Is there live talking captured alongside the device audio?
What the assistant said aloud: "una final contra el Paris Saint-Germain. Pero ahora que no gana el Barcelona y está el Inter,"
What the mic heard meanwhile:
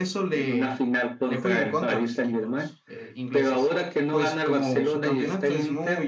Yes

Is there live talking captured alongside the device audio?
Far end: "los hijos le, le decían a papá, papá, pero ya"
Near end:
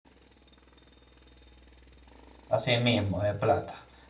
Yes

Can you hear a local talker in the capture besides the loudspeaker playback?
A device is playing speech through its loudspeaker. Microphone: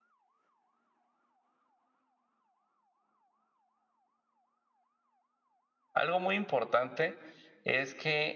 Yes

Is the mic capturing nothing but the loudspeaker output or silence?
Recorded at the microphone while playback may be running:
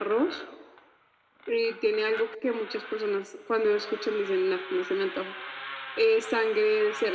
Yes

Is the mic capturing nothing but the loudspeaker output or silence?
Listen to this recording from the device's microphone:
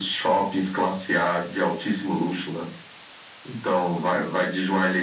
Yes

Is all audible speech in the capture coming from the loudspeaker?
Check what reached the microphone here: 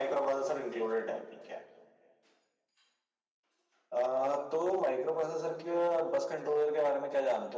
Yes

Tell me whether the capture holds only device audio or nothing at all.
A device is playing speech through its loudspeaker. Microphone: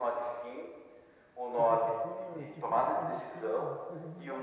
No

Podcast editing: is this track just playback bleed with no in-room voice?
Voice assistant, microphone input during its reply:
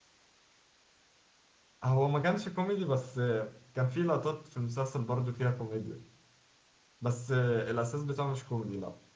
No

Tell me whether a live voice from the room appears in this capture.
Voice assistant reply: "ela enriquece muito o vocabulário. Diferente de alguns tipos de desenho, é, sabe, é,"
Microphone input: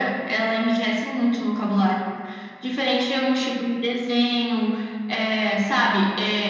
No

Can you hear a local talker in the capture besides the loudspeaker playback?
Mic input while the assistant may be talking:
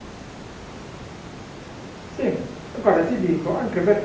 Yes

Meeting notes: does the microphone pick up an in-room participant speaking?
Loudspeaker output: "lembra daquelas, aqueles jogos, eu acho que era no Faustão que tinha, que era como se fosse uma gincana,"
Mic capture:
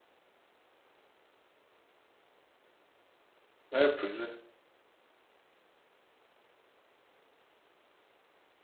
Yes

